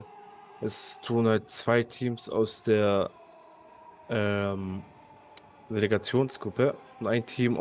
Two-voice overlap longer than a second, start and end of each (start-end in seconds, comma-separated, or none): none